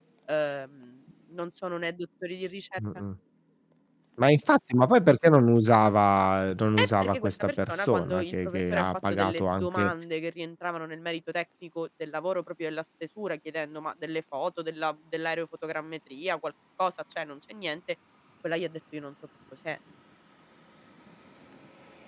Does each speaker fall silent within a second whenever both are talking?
No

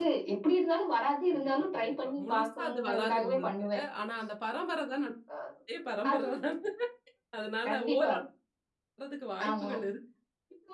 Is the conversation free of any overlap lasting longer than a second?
No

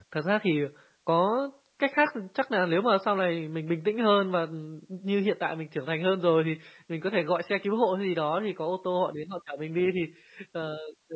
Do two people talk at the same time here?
No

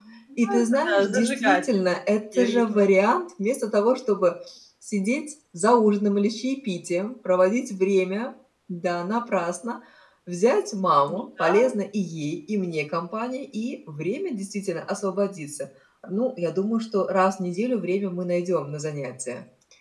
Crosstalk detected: Yes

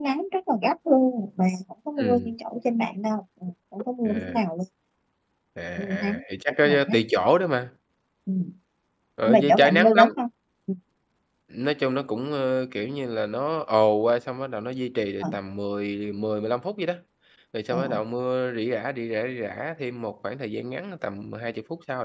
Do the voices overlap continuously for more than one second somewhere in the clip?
Yes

